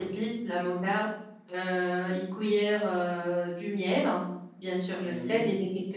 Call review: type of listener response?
listening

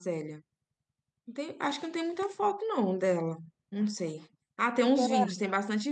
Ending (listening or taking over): listening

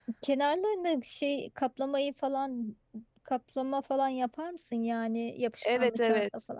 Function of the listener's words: taking over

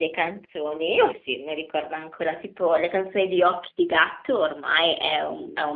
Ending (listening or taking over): listening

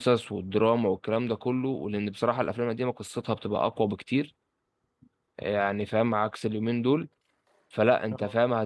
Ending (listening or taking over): listening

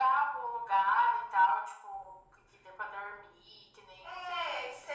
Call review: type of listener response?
taking over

